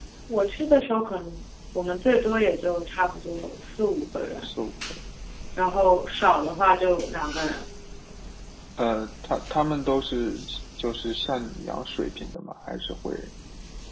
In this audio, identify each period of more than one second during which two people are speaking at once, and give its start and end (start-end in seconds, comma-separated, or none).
none